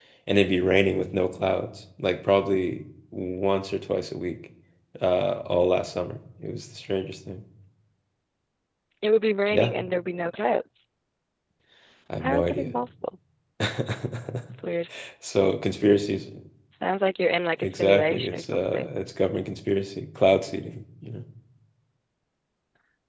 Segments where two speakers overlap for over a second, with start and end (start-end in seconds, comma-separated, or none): 17.6-18.9